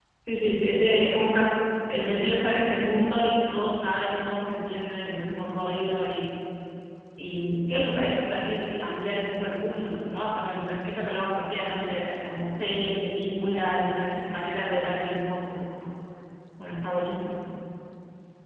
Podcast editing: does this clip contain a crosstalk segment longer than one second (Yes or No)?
No